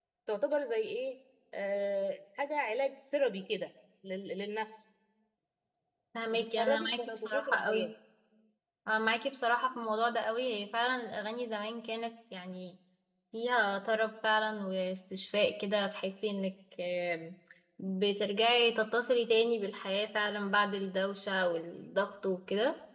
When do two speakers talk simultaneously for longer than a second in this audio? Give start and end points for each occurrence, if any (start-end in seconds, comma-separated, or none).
6.3-7.9